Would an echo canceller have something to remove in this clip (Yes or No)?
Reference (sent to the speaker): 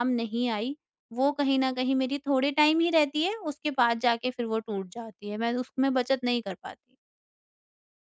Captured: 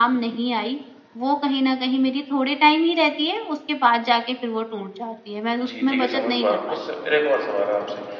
Yes